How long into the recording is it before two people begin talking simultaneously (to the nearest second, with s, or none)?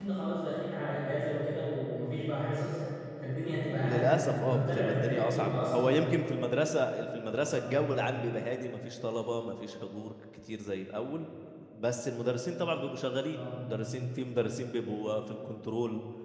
4 s